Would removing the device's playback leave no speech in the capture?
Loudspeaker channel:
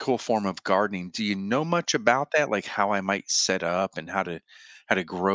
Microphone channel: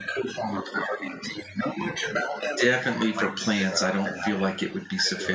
No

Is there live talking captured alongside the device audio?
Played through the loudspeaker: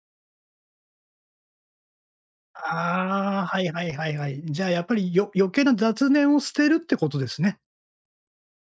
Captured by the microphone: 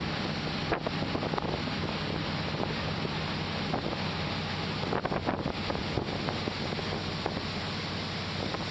No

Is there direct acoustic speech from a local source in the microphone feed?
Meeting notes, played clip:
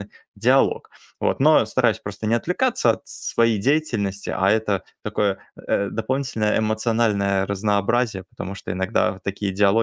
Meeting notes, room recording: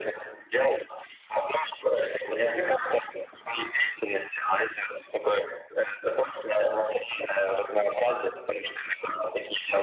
No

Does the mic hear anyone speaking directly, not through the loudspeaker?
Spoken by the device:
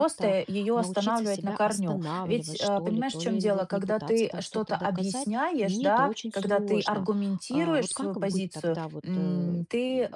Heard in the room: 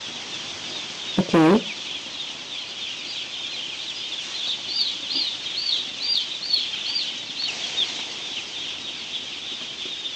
Yes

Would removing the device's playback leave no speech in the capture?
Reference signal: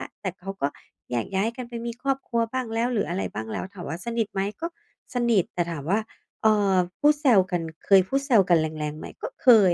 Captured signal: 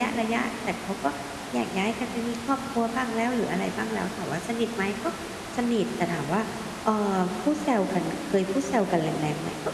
Yes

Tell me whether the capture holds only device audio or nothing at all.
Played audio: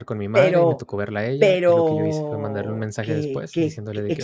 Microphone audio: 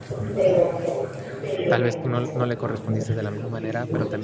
No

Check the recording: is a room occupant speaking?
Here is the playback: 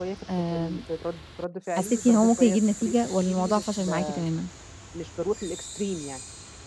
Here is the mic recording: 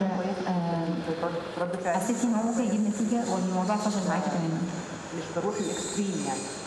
No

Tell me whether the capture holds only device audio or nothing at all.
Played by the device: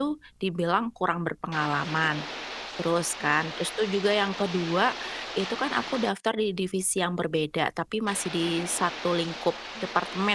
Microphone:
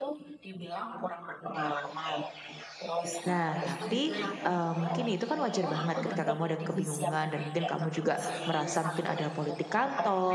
No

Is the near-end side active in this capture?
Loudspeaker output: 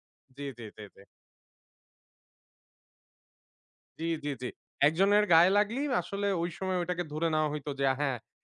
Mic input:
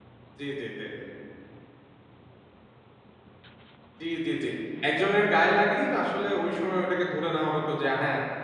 No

